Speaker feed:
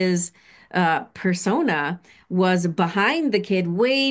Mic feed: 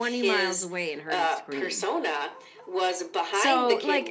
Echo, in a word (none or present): present